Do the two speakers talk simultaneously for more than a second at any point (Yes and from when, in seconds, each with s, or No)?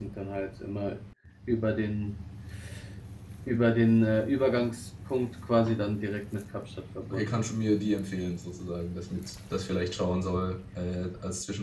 No